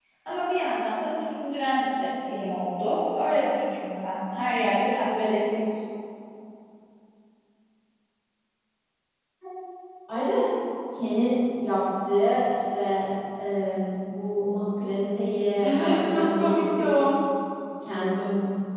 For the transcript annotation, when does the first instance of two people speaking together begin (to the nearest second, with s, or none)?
16 s